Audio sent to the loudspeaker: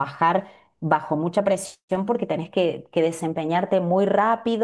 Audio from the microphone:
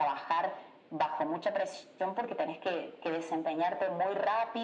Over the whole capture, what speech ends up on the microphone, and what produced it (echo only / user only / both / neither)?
echo only